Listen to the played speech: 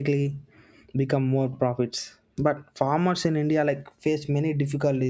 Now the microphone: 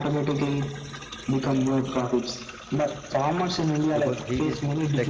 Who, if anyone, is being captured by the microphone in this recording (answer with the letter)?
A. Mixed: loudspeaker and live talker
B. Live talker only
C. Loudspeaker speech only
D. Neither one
A